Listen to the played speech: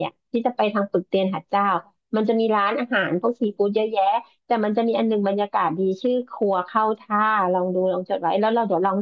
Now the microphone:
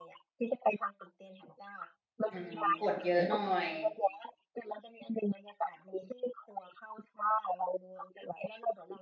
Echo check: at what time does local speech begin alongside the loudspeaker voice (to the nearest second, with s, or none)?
2 s